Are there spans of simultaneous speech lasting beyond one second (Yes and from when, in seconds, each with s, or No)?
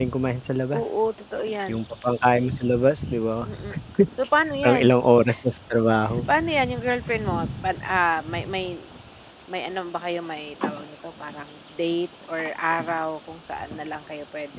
No